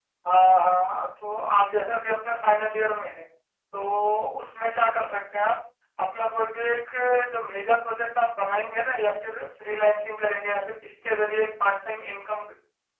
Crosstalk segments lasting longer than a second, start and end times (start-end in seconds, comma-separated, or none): none